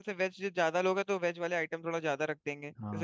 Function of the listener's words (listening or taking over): taking over